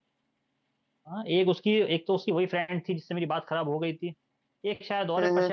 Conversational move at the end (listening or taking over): listening